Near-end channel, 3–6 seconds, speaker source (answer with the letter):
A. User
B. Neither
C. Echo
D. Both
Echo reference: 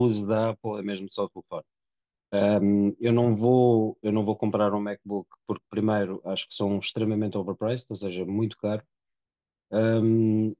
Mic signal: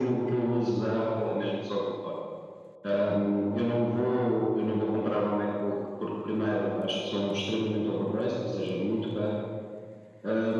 C